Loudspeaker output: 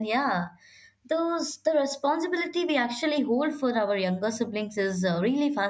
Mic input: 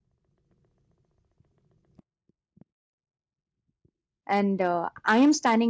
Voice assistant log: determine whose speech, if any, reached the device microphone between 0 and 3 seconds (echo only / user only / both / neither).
neither